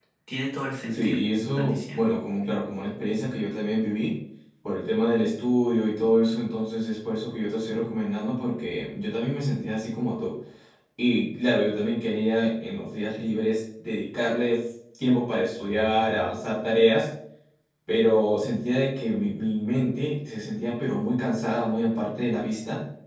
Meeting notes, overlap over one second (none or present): present